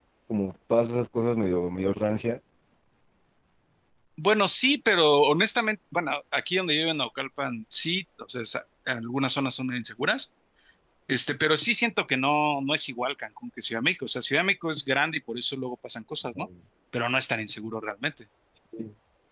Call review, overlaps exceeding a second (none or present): none